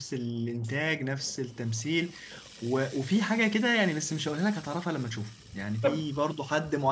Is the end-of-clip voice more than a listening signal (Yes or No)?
No